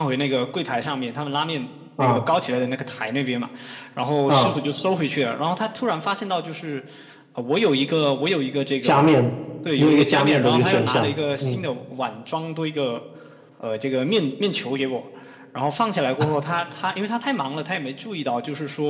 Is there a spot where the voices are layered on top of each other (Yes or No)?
Yes